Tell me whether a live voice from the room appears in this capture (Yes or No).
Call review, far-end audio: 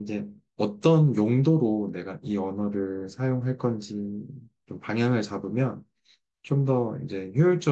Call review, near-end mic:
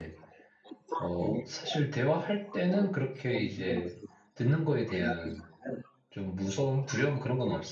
Yes